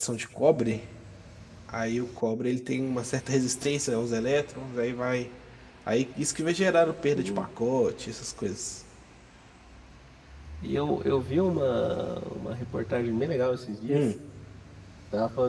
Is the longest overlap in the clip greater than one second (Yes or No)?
No